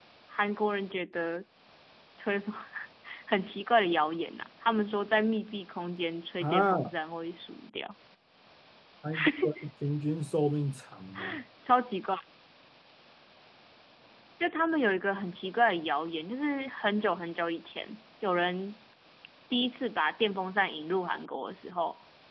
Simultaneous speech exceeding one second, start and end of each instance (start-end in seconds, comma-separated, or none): none